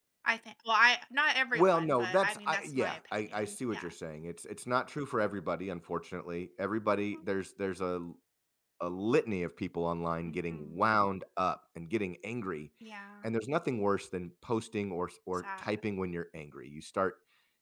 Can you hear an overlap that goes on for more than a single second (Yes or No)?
Yes